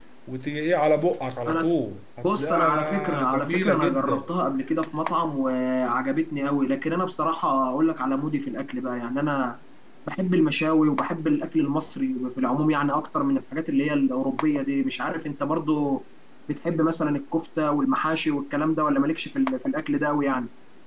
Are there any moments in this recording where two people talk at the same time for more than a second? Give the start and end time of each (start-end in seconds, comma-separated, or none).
2.2-4.3